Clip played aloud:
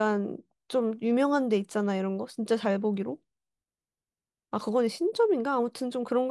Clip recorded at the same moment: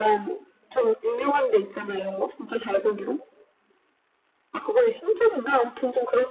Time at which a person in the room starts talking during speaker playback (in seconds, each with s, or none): none